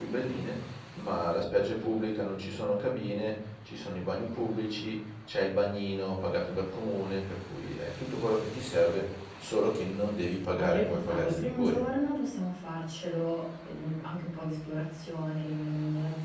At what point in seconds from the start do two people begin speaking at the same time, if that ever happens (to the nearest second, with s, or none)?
11 s